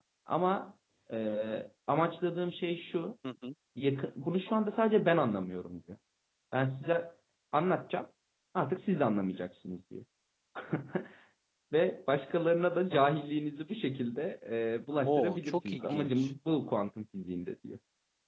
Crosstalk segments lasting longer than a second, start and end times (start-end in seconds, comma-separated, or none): 15.0-16.3